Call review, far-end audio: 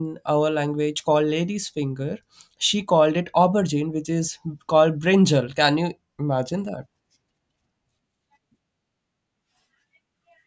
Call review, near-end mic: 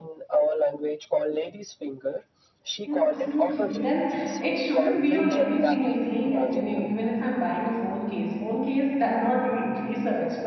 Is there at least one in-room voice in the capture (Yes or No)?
Yes